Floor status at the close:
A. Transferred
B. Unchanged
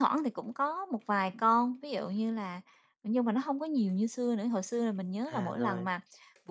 B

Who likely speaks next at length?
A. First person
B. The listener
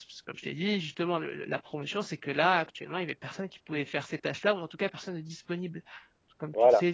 A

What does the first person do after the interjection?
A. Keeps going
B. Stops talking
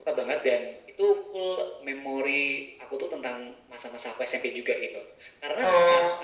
A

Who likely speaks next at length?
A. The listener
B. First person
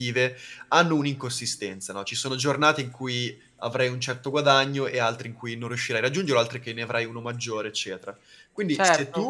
B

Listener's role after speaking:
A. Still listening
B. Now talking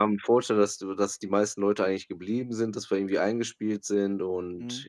B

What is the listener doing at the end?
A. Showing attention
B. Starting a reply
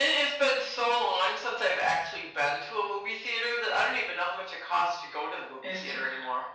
B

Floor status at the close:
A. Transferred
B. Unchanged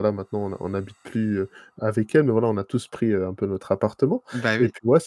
B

